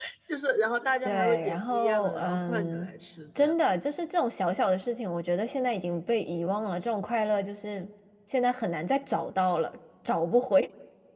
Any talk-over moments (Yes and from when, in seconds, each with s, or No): Yes, from 1.0 s